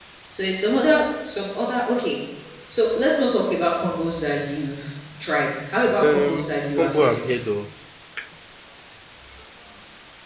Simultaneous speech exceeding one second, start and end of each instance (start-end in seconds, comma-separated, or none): 6.0-7.3